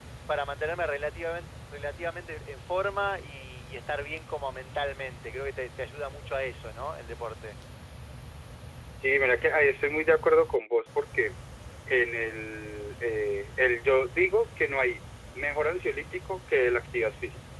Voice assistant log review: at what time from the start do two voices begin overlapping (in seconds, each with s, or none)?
none